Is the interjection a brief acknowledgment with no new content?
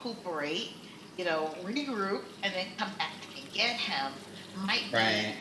Yes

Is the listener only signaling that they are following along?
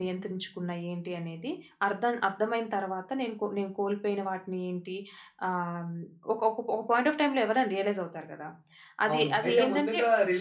No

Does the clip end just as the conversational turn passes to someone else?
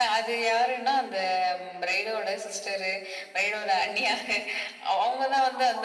No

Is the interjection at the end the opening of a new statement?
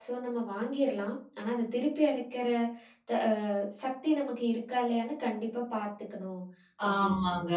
Yes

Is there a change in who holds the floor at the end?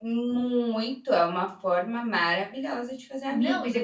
Yes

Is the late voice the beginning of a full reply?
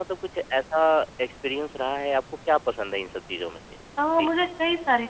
Yes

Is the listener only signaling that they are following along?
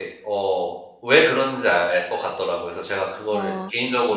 No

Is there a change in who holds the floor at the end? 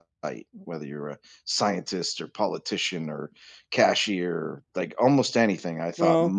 No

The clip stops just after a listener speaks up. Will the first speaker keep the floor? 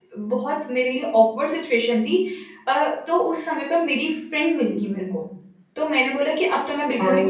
Yes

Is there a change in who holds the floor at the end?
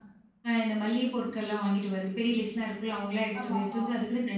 No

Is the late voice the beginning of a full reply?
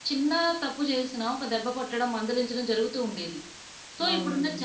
No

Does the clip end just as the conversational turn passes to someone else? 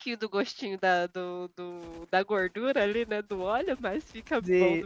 Yes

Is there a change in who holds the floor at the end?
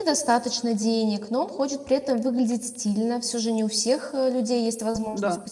No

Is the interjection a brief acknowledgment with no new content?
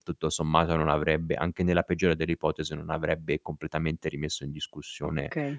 No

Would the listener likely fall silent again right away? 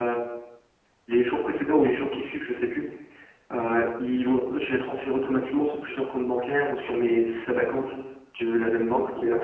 Yes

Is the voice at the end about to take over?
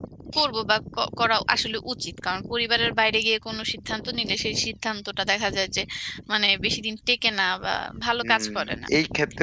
Yes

